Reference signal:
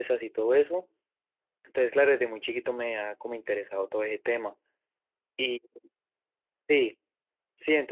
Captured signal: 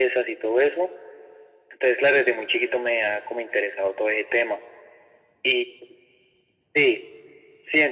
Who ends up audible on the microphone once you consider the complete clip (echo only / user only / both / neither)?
echo only